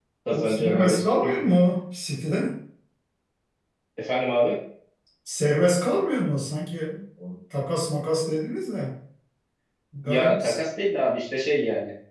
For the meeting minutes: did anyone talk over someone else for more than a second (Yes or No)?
Yes